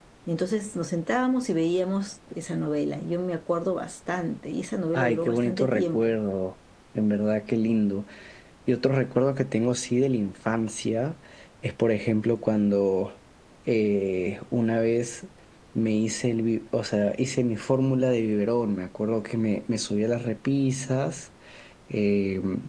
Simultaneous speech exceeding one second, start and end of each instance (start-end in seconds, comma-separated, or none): 4.9-6.1